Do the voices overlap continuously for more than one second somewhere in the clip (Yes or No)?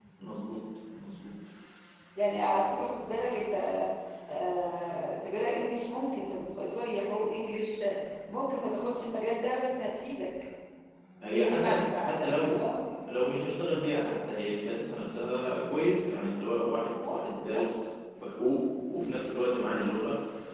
Yes